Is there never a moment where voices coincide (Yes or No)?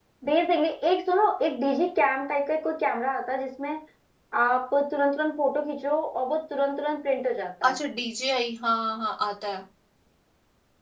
Yes